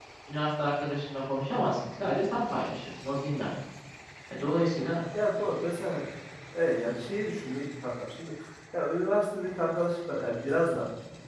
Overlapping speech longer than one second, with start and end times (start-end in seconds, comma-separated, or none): none